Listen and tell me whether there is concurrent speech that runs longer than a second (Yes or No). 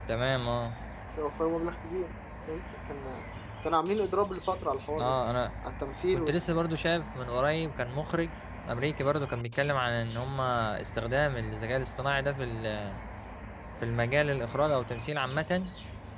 No